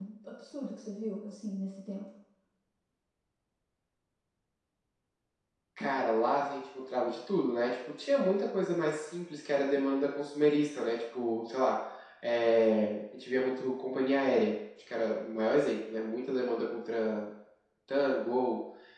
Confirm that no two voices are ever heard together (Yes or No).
Yes